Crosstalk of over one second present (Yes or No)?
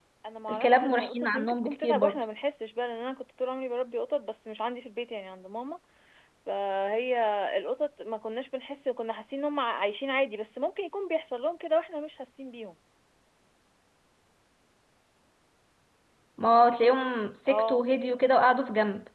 Yes